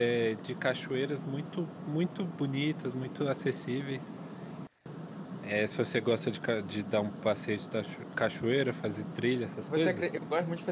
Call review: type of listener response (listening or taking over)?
taking over